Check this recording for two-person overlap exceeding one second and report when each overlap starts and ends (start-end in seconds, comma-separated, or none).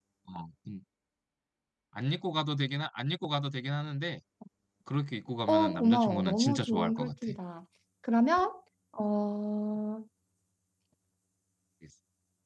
5.5-7.3